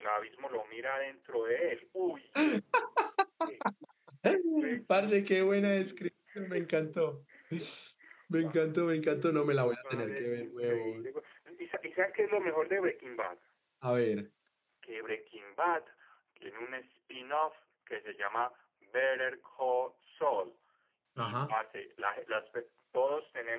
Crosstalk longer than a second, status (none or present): present